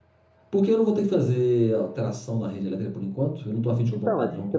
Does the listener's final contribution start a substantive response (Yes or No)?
Yes